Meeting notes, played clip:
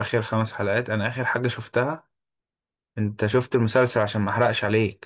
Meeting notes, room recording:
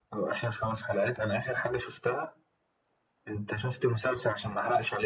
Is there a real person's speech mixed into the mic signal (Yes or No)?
No